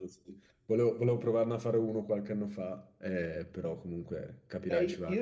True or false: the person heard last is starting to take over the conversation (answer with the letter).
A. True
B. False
A